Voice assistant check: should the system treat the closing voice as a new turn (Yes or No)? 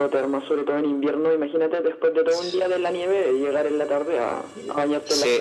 Yes